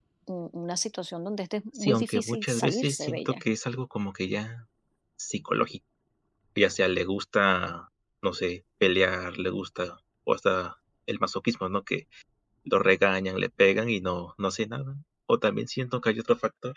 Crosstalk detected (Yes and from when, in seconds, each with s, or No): Yes, from 1.8 s